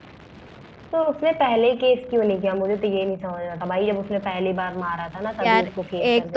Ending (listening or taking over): taking over